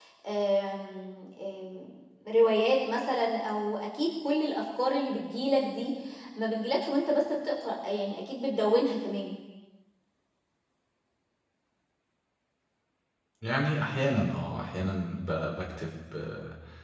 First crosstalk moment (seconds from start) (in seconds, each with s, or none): none